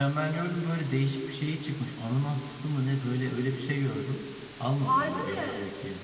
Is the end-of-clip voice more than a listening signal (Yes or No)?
No